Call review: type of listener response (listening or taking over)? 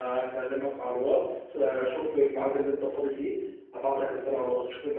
listening